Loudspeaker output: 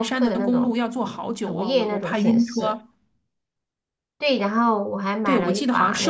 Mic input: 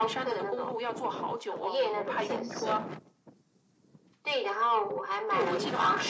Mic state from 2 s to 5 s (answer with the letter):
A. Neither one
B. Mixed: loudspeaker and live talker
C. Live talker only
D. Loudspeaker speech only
D